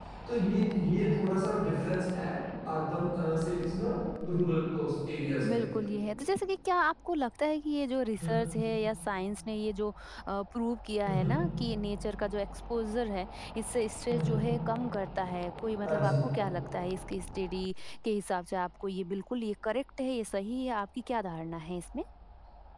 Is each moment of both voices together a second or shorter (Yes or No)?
Yes